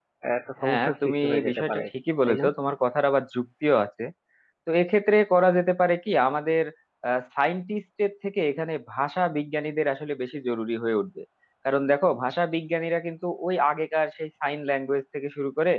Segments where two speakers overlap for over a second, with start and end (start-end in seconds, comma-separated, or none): 0.6-1.8